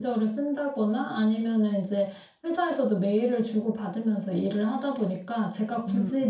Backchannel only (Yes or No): Yes